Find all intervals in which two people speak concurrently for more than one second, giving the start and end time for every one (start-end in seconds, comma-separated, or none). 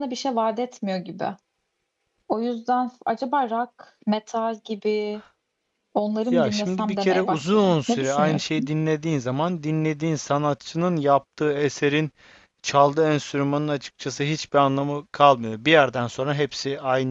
6.3-8.7